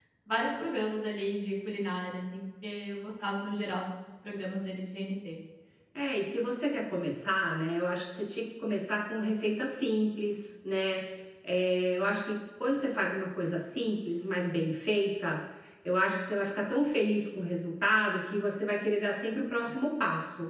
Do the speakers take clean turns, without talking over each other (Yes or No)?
Yes